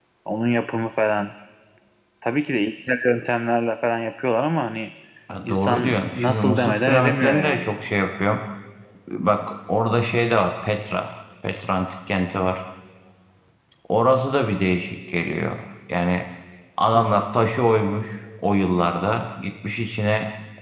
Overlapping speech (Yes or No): Yes